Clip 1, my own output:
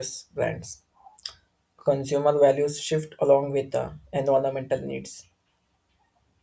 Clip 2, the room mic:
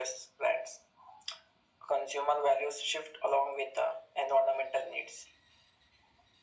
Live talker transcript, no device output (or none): none